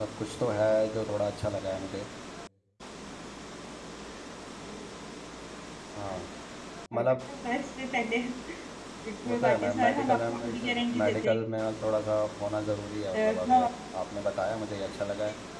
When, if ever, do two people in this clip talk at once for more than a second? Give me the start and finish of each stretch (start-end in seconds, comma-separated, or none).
9.2-11.4